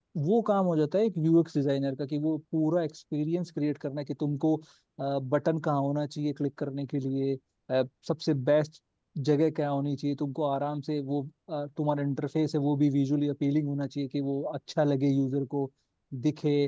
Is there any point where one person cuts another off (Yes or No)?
No